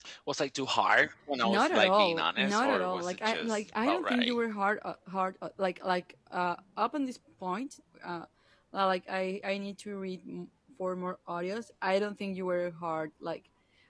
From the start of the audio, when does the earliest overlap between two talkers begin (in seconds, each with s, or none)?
1.4 s